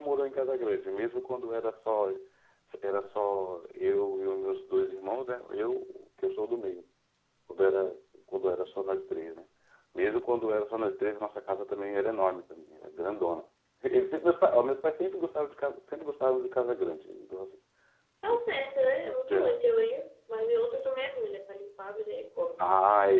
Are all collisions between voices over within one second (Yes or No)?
Yes